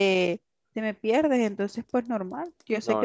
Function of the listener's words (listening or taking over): listening